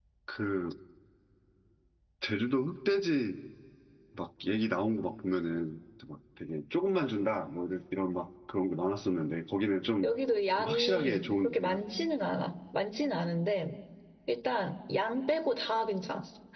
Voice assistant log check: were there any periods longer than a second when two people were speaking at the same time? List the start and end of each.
10.6-11.8

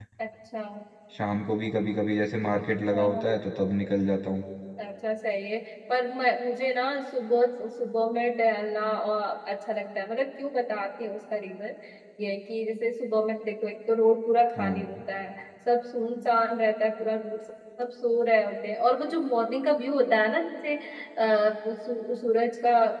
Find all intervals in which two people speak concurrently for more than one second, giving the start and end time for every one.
none

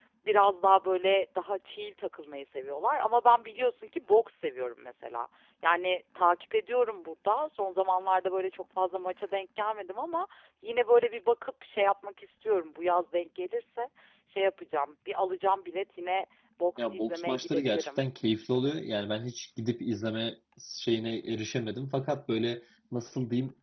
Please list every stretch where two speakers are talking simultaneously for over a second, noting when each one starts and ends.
16.8-18.0

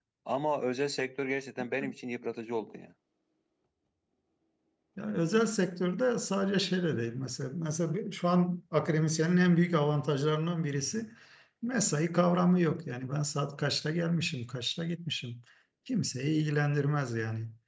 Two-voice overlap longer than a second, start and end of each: none

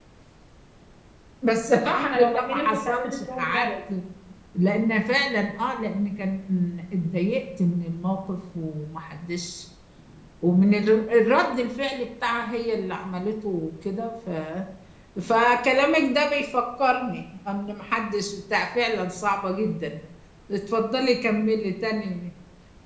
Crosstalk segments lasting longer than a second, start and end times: 1.9-3.7

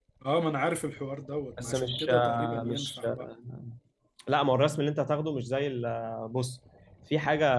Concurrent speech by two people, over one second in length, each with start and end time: 1.6-3.3

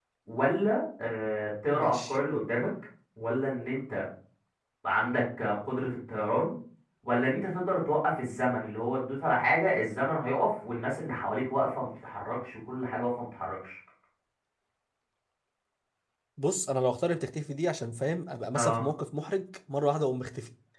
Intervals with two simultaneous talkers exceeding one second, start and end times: none

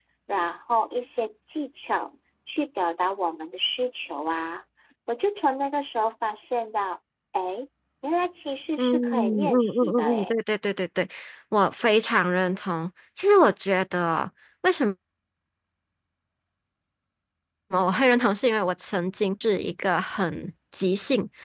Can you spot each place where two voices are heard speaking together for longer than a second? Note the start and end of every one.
8.8-10.3

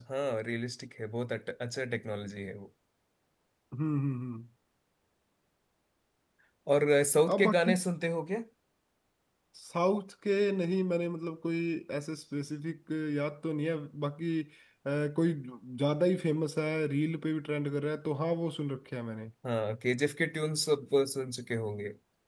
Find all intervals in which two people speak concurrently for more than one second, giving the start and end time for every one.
none

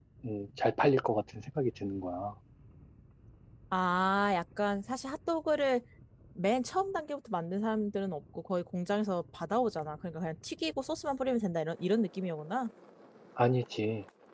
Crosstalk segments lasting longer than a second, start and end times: none

